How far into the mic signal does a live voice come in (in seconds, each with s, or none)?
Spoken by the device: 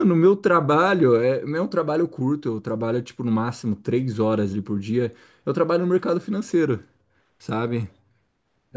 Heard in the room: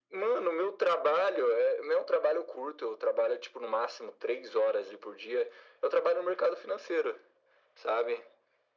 none